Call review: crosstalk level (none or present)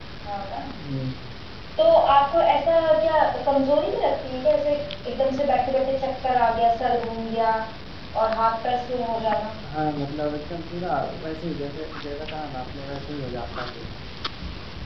none